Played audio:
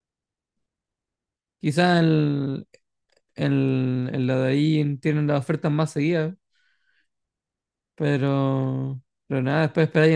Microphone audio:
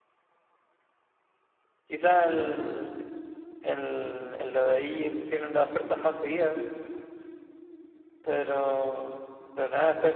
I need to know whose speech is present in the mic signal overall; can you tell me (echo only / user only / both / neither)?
echo only